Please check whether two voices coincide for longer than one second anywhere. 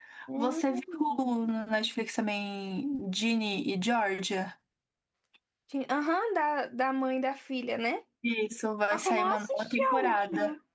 Yes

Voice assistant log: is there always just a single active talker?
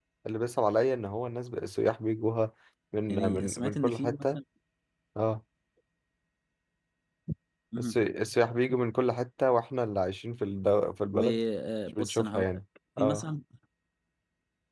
No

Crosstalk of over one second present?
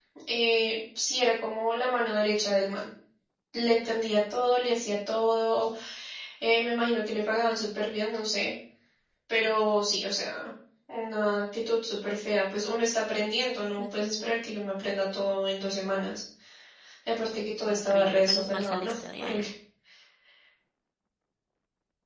Yes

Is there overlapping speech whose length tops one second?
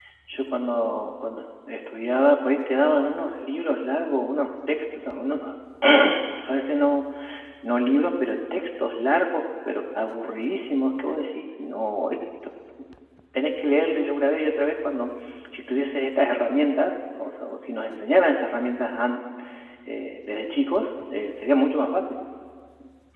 No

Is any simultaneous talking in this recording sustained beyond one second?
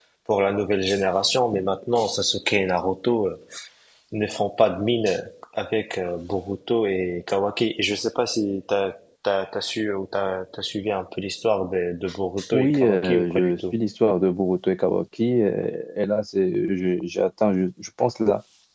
Yes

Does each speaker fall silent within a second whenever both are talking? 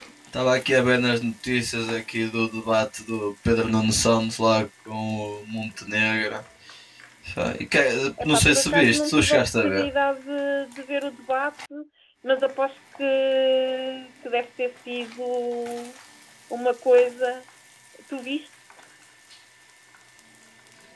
No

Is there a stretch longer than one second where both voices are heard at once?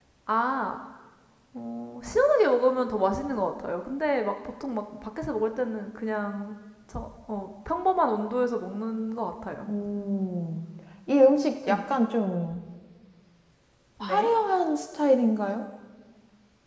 No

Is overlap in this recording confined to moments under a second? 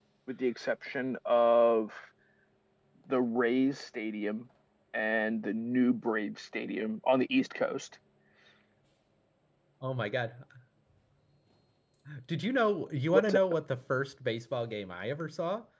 Yes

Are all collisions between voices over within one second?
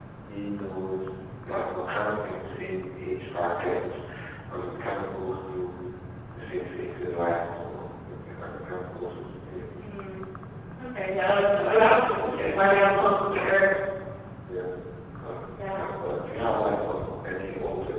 Yes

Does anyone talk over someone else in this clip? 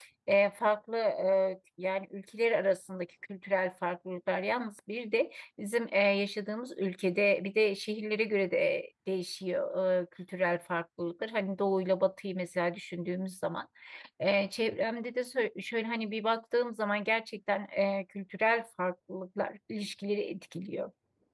No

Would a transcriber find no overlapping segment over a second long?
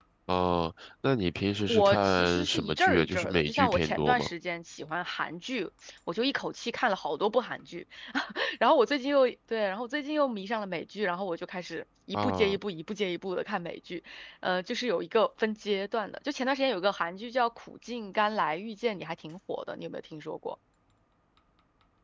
No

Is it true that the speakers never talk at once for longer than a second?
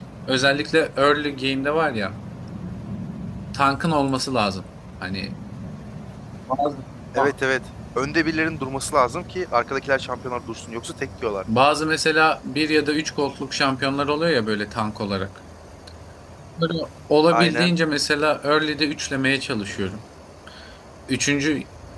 Yes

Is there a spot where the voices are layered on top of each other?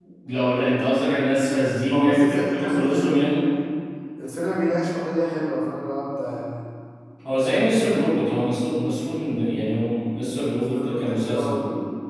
Yes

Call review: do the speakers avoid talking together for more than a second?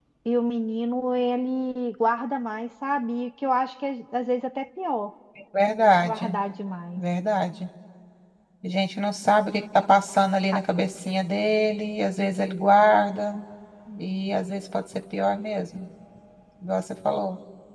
Yes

